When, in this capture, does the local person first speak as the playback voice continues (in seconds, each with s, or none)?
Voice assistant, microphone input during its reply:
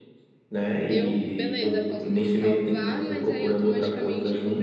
0.9 s